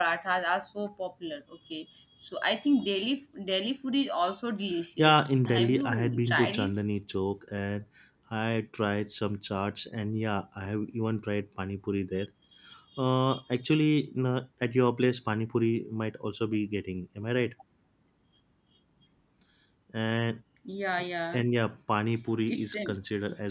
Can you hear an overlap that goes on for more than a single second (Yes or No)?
Yes